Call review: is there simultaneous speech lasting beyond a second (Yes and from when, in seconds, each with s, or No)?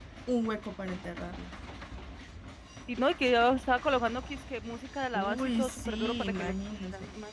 Yes, from 5.1 s